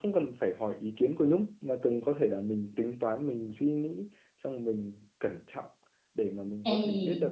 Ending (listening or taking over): listening